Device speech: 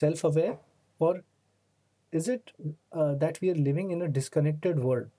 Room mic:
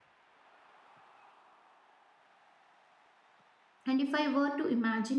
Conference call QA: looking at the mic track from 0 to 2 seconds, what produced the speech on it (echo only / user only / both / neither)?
neither